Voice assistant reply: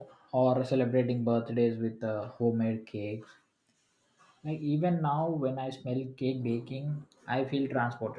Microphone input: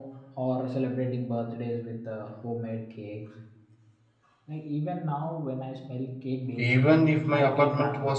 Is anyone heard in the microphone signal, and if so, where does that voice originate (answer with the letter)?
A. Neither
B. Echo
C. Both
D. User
C